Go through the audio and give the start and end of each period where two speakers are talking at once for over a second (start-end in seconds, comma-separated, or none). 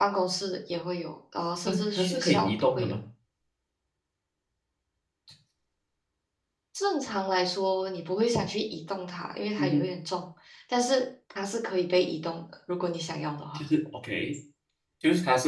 1.6-2.9